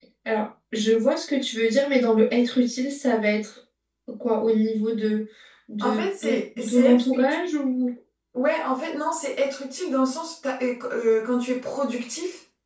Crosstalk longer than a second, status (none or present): present